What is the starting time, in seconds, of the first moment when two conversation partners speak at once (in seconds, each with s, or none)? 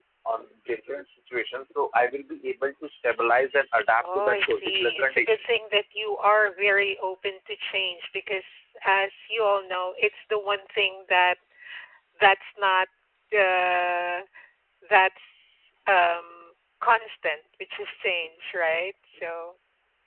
3.8 s